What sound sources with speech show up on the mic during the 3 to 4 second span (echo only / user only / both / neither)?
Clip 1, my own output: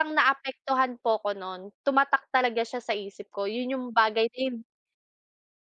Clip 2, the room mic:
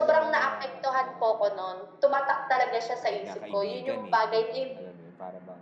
both